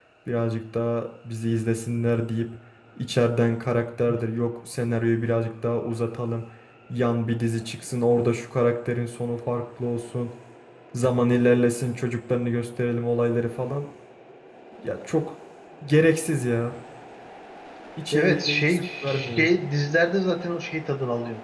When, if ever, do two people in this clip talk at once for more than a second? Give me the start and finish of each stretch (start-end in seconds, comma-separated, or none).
18.1-19.5